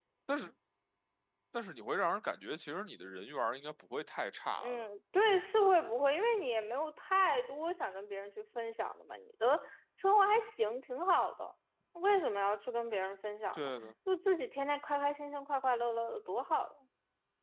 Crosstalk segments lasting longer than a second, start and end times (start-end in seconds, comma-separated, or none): none